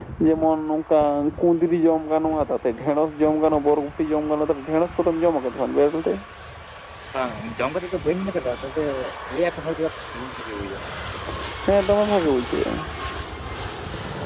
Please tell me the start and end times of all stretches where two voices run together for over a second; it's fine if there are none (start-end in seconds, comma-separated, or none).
none